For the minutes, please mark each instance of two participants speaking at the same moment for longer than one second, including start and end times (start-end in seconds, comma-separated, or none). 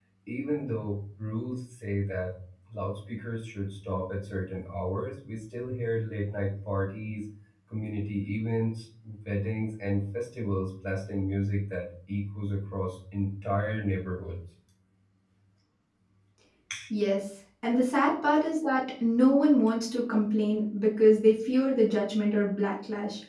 none